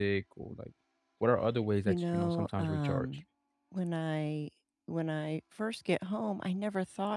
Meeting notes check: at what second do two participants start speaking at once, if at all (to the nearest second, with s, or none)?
2 s